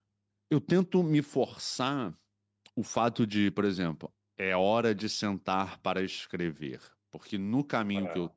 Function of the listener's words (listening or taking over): listening